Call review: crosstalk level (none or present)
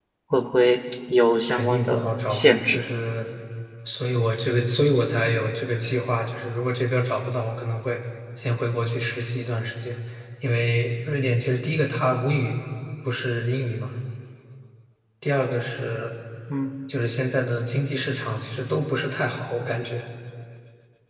present